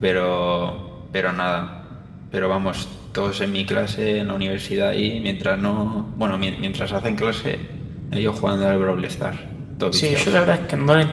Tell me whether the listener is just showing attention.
No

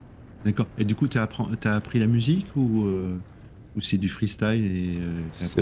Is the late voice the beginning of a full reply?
Yes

